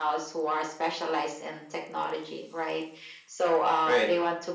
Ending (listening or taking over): listening